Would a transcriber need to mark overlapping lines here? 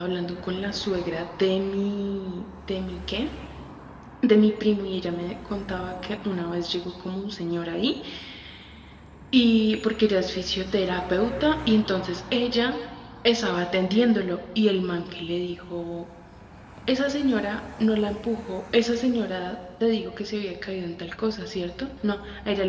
No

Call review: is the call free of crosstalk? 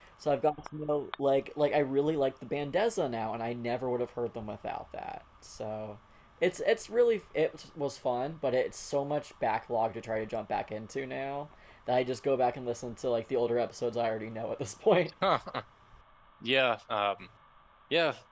Yes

